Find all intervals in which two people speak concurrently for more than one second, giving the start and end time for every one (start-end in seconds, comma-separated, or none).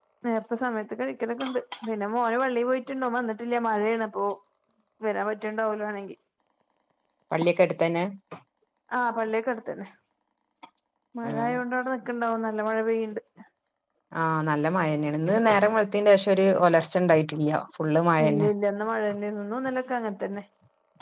none